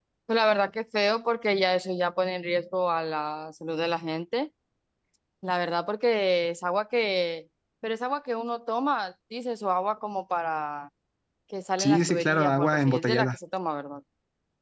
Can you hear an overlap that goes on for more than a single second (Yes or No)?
Yes